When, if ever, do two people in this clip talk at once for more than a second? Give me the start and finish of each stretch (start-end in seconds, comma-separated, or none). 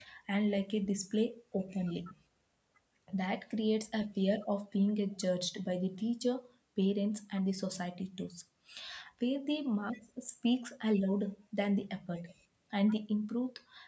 none